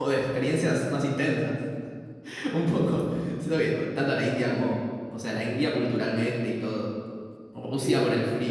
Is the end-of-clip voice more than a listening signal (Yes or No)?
No